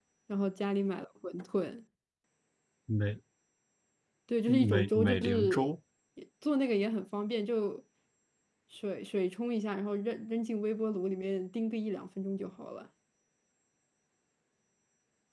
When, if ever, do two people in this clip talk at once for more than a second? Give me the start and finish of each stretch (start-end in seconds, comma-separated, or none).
4.5-5.7